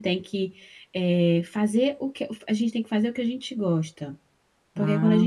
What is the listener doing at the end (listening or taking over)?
listening